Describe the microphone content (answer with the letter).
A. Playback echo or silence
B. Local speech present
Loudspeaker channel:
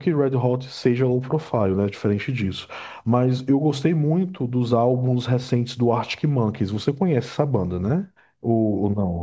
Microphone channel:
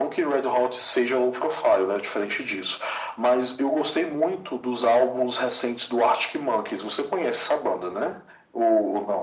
A